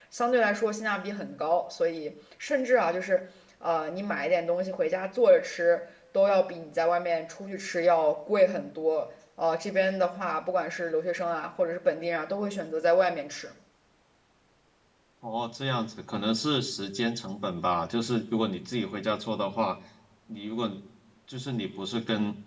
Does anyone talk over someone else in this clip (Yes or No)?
No